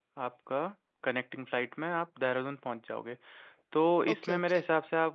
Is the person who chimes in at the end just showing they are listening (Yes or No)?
Yes